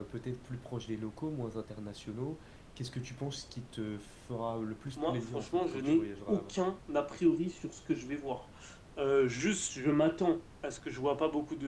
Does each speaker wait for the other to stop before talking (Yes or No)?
No